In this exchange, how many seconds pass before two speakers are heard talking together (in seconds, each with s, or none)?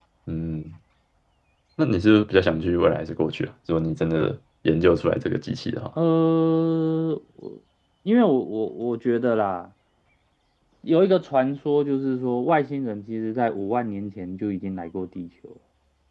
none